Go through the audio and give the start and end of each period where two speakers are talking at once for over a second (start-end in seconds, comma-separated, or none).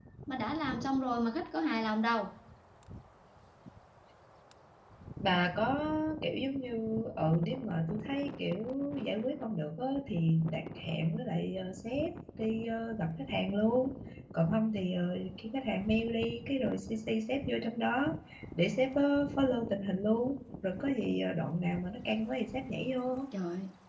none